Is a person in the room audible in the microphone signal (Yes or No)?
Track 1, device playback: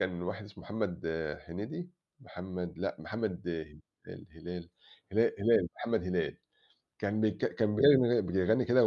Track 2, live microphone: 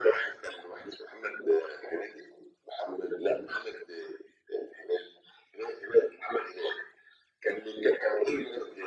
No